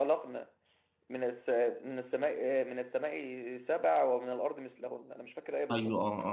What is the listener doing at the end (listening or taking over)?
taking over